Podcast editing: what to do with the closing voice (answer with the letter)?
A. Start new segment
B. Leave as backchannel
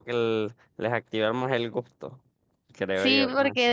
A